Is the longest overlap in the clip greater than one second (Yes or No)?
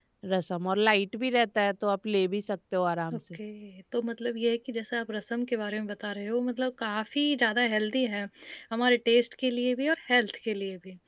No